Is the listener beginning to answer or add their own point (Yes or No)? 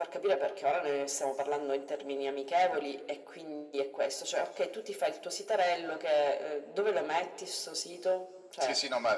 Yes